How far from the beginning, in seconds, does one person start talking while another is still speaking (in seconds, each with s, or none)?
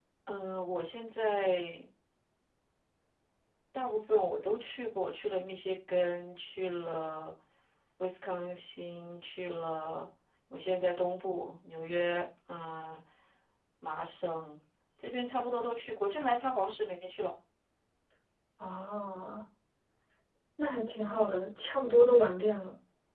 none